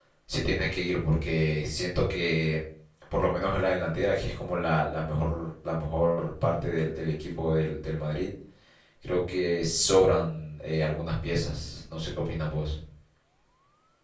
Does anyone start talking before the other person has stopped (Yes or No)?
No